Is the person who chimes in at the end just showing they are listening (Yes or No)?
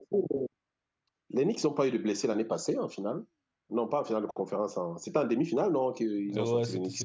No